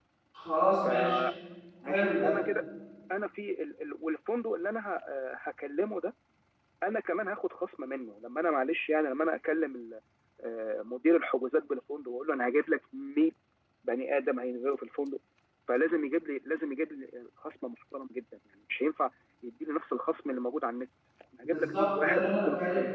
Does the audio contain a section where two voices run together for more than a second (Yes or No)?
Yes